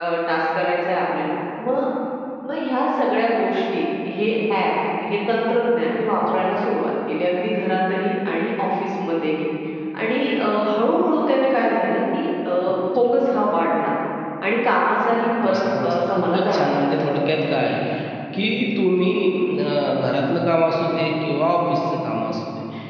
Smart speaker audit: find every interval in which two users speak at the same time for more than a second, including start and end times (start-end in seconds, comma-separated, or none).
15.4-17.0